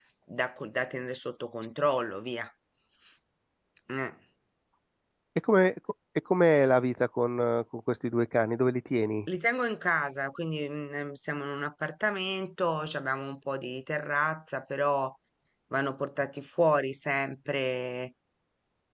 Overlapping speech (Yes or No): No